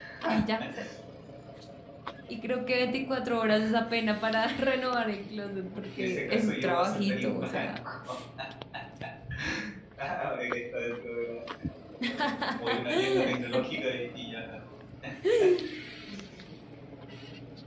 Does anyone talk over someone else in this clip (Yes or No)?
Yes